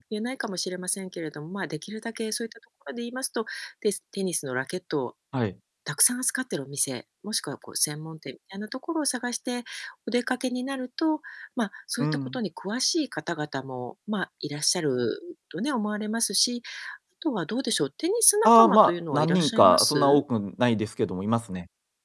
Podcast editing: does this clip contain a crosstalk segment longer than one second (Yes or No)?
Yes